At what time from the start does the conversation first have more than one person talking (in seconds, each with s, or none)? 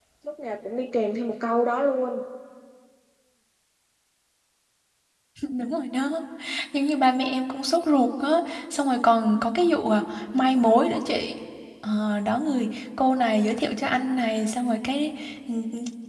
none